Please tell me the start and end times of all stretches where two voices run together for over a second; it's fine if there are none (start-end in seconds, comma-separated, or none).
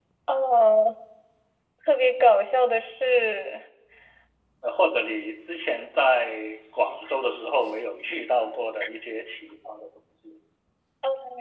none